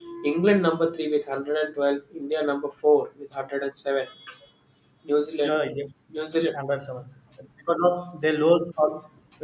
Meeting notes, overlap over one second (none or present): none